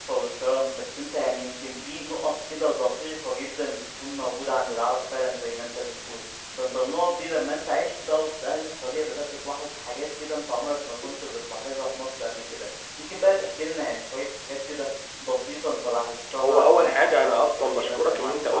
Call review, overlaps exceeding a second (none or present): present